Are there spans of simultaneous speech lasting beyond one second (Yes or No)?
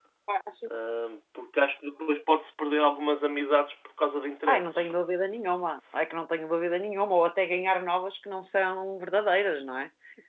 No